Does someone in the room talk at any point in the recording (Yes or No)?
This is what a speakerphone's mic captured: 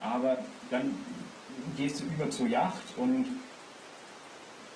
No